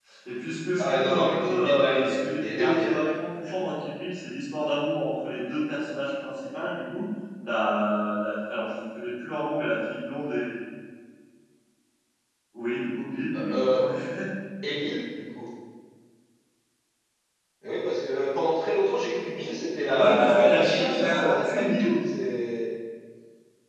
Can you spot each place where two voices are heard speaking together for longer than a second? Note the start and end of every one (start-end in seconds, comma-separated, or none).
0.8-3.0, 19.9-22.0